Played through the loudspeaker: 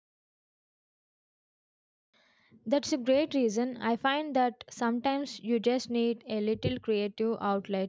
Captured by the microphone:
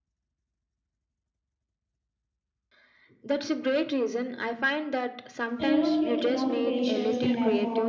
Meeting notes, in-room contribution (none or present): present